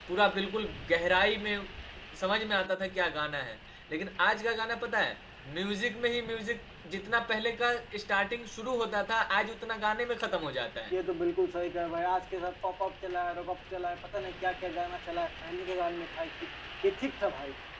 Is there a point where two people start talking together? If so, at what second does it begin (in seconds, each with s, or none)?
none